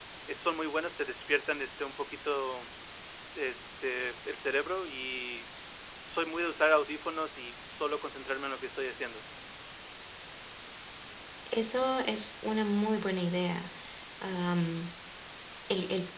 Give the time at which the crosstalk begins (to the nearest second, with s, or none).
none